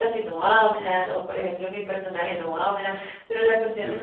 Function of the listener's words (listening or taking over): listening